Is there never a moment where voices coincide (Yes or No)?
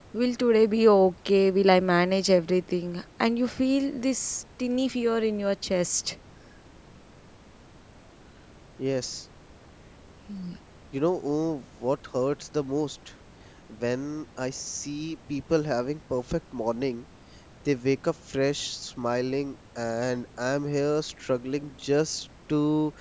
Yes